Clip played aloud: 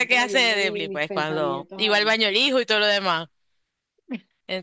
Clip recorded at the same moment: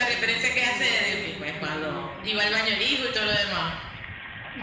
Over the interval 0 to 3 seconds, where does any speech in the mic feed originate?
echo only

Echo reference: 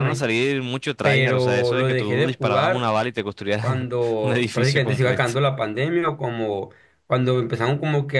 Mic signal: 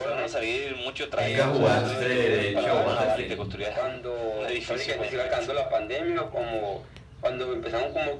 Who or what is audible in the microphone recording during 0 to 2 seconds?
both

